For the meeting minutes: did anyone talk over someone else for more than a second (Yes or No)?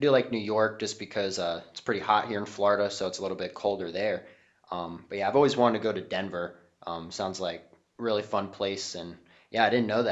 No